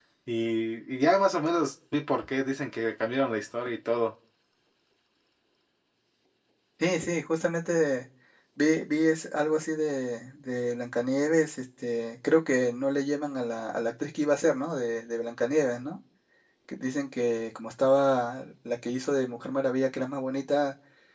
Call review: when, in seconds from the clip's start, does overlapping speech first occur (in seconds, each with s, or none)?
none